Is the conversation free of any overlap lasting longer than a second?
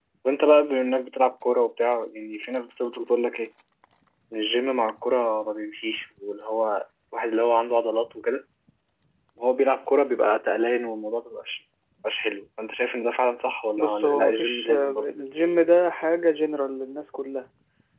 No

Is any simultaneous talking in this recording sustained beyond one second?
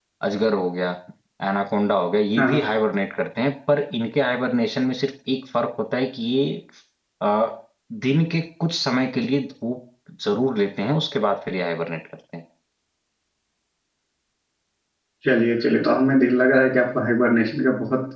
No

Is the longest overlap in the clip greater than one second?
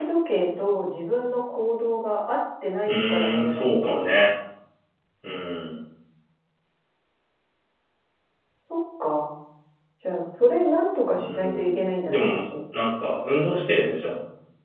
Yes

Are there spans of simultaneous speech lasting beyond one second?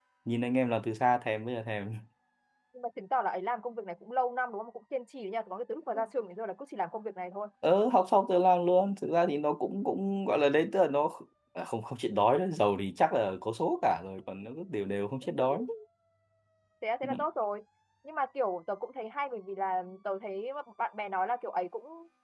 No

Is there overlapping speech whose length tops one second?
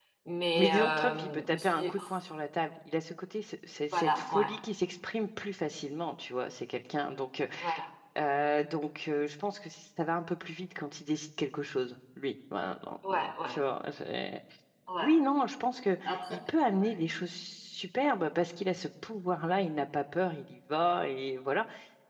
Yes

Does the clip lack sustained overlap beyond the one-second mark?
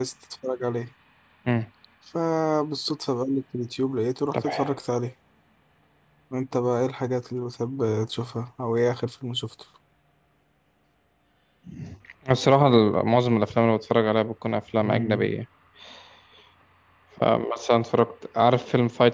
Yes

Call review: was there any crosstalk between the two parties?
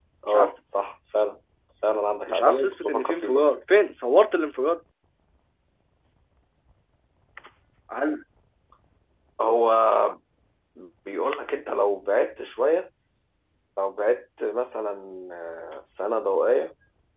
Yes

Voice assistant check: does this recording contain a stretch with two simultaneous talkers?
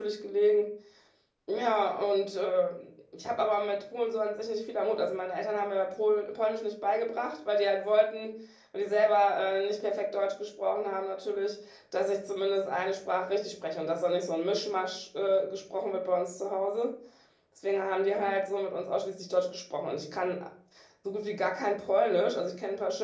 No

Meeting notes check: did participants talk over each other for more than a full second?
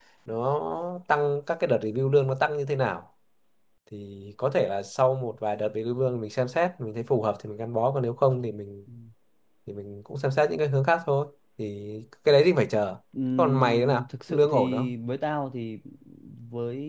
Yes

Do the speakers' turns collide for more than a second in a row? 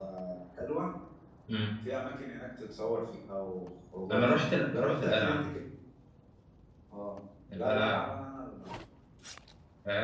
Yes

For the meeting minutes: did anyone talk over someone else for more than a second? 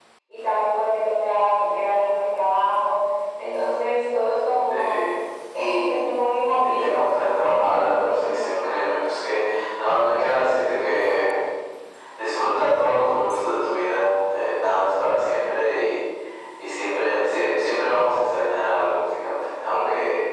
Yes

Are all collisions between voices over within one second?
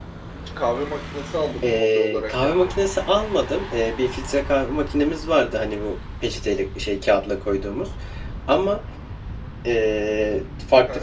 No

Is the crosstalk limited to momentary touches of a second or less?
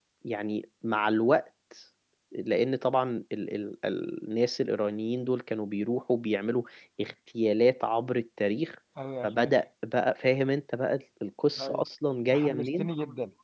Yes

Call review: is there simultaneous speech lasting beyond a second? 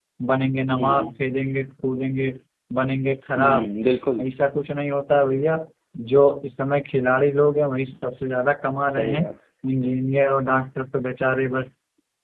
No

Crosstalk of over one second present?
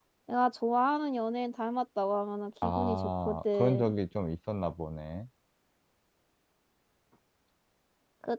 Yes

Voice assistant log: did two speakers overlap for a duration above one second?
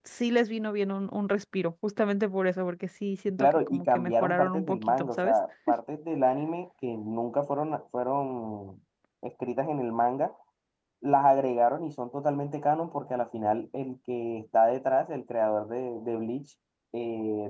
Yes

